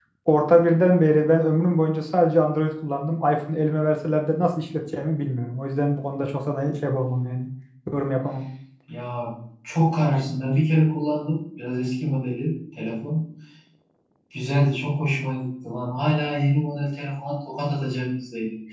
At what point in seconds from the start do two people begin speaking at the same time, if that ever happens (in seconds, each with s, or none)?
none